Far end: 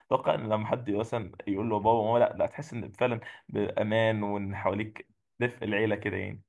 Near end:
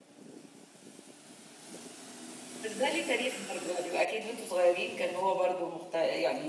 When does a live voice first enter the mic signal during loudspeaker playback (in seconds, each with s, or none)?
2.6 s